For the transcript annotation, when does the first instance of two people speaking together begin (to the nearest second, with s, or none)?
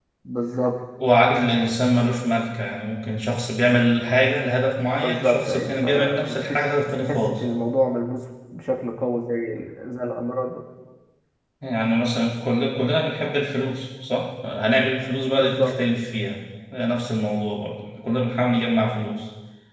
5 s